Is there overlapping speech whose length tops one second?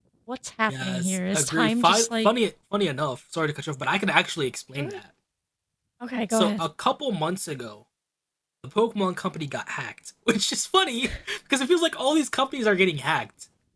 Yes, from 0.7 s

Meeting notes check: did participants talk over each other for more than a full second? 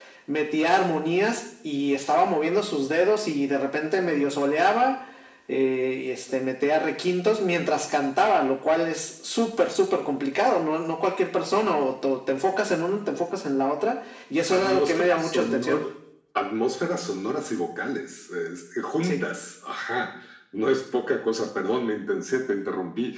Yes, from 14.5 s

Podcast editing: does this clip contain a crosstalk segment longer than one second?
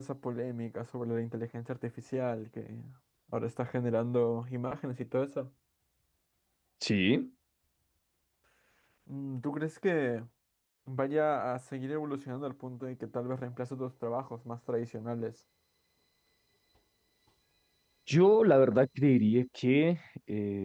No

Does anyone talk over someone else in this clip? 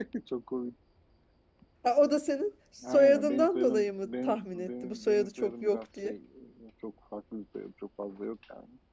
Yes, from 2.8 s

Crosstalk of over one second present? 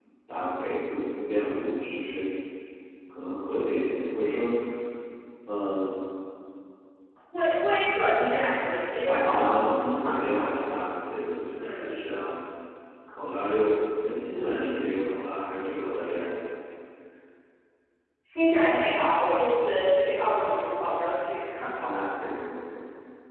Yes, from 9.1 s

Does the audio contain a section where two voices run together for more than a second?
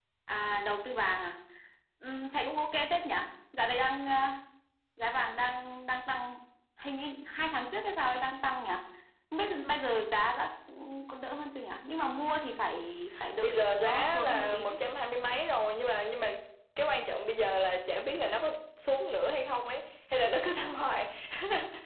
Yes, from 13.1 s

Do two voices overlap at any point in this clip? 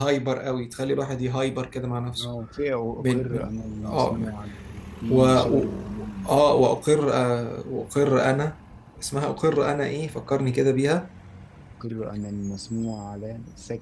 Yes, from 2.9 s

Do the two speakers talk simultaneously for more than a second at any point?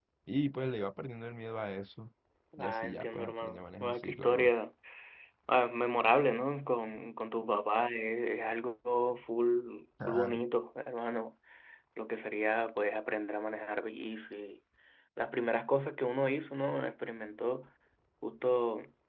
Yes, from 2.6 s

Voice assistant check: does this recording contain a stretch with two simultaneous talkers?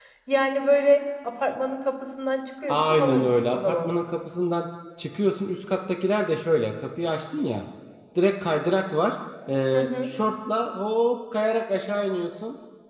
Yes, from 2.7 s

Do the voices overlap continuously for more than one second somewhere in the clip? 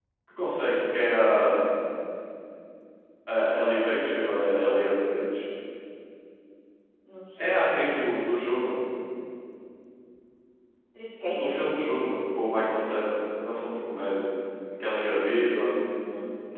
No

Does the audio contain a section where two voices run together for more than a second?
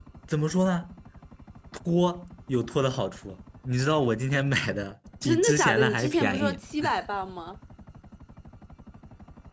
Yes, from 5.2 s

